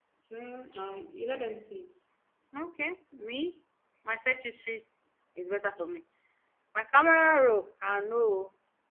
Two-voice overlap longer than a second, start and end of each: none

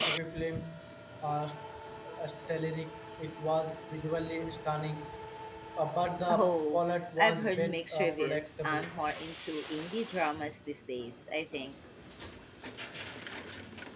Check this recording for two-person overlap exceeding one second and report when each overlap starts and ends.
7.2-8.9

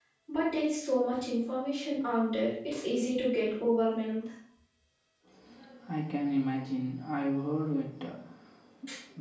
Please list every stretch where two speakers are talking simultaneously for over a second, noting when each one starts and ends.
none

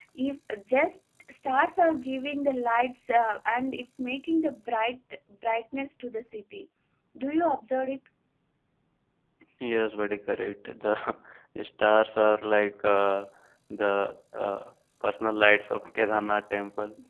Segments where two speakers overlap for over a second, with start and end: none

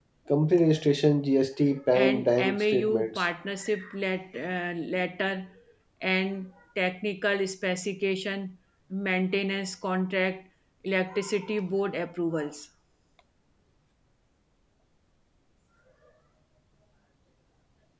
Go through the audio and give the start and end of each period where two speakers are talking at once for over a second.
1.9-3.3

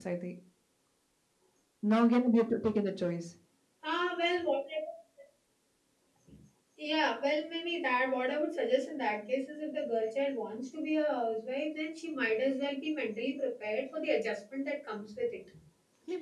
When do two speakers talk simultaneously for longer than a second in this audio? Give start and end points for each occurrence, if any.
none

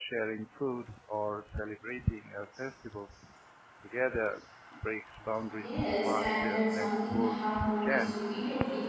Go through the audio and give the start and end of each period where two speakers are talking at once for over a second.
5.6-8.1

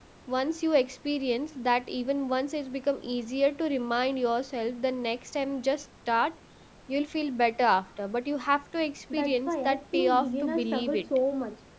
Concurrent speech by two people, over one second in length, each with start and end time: 9.1-11.1

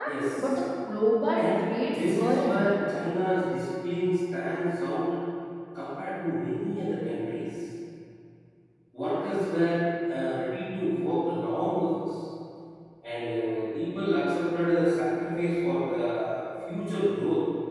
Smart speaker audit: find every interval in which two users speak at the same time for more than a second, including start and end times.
1.4-2.7

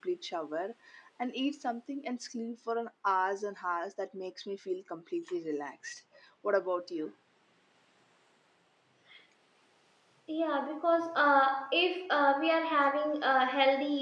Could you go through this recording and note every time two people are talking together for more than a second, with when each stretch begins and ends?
none

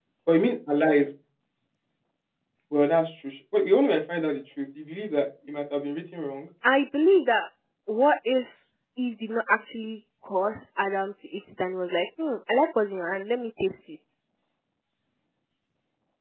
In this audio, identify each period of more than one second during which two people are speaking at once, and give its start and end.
none

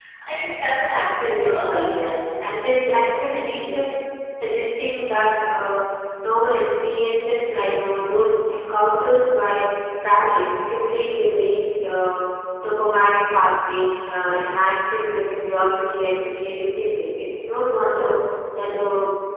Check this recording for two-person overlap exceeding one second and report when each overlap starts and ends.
0.9-2.9

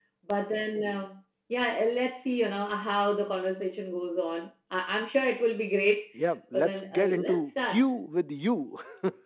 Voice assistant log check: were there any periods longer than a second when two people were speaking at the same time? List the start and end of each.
6.5-7.8

